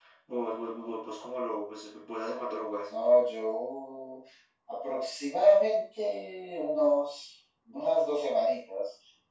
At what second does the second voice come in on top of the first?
none

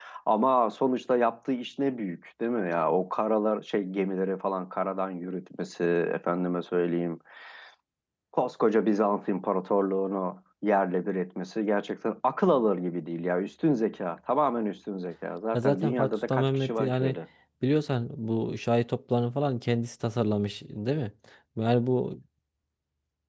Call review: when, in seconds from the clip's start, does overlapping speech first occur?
15.5 s

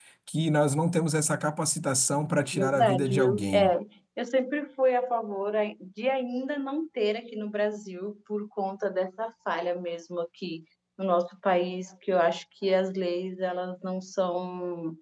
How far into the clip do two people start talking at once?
2.5 s

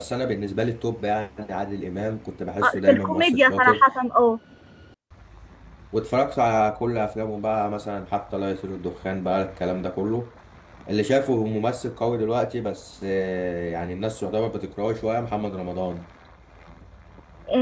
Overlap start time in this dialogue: 2.6 s

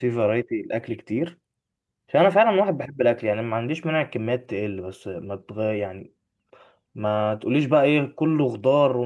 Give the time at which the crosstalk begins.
none

